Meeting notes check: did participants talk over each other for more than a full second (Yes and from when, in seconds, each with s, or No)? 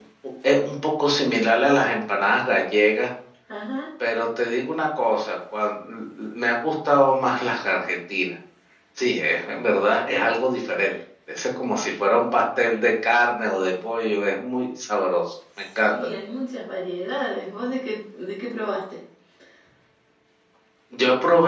No